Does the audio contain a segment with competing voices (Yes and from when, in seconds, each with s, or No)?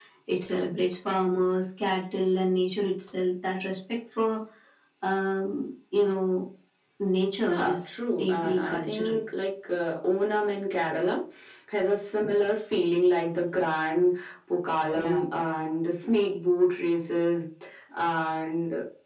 Yes, from 7.5 s